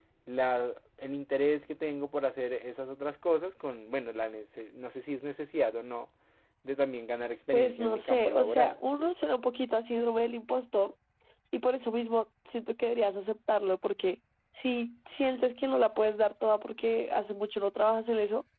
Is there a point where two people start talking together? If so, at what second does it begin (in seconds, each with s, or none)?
7.5 s